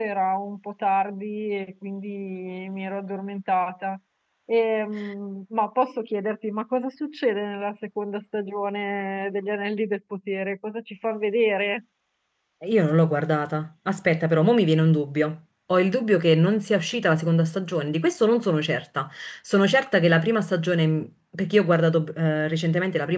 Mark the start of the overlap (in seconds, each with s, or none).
none